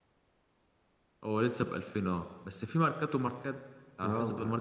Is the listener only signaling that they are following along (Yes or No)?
No